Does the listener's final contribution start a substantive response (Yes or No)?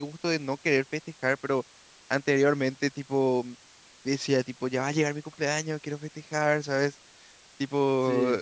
No